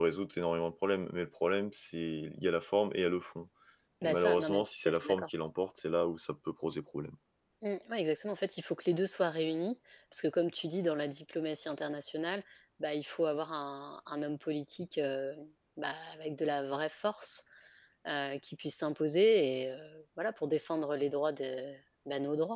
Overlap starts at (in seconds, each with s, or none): 4.0 s